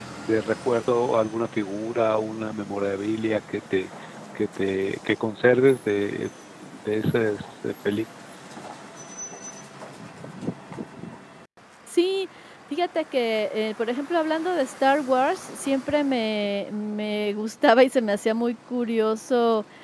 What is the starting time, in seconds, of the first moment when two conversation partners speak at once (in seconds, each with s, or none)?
none